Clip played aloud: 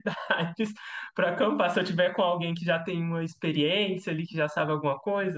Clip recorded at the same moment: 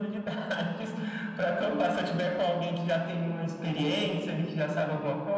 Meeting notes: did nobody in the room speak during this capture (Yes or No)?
Yes